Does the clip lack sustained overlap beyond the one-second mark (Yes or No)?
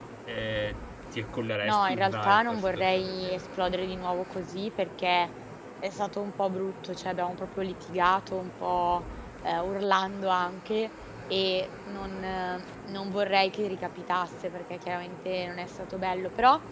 No